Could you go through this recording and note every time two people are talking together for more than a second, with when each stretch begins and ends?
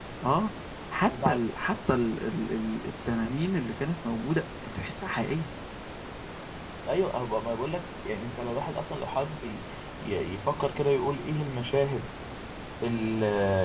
none

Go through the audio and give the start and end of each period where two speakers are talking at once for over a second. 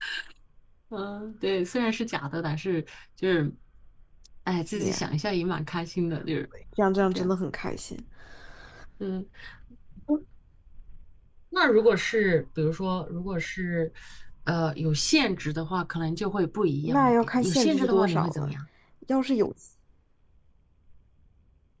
16.8-18.5

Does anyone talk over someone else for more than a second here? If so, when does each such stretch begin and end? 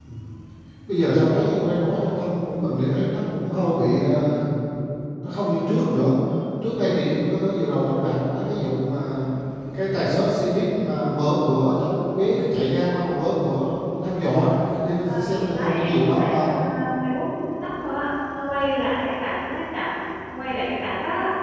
15.2-16.5

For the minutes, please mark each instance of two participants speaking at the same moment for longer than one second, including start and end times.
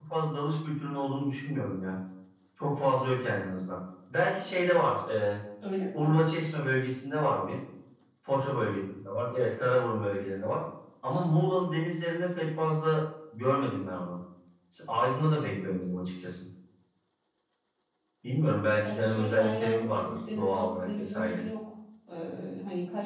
18.8-21.5

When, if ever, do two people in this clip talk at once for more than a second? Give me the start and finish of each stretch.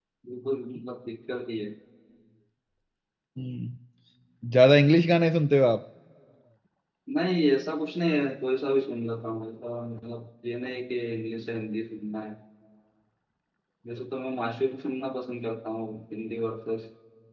none

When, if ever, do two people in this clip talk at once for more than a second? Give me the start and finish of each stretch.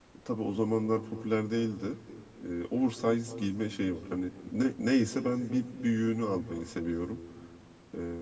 none

